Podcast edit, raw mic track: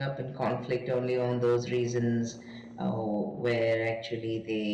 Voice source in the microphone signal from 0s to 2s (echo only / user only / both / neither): user only